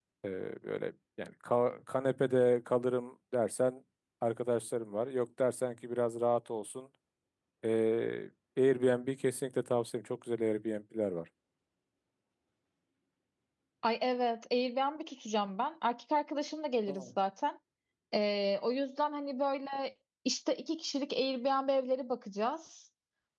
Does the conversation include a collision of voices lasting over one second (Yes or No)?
No